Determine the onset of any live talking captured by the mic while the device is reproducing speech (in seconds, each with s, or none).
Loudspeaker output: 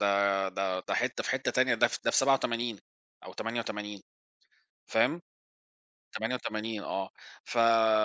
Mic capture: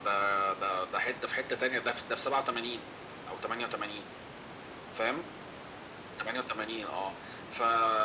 none